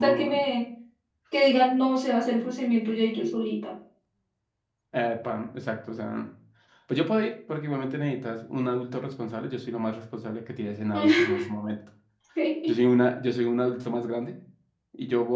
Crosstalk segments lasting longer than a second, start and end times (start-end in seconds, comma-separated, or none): none